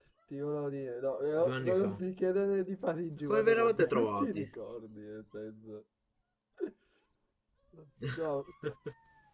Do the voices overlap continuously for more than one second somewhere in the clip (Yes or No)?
Yes